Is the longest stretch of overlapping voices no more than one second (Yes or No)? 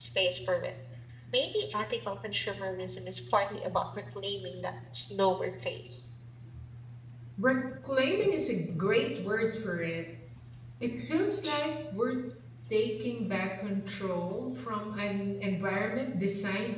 Yes